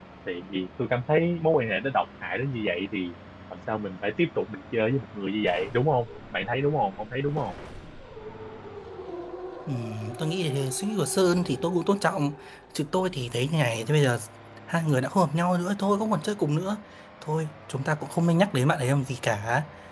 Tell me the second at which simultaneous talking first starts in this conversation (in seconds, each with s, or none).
none